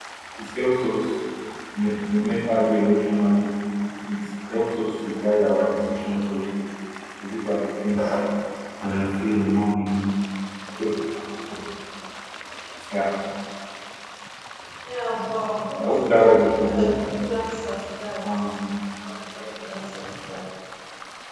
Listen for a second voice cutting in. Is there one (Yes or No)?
Yes